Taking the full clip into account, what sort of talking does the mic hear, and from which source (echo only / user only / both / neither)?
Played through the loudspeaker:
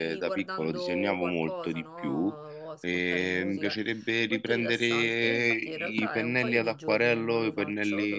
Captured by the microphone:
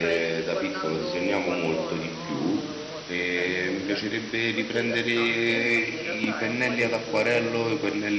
echo only